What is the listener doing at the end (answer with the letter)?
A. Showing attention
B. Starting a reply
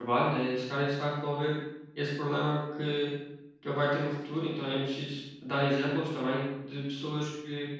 A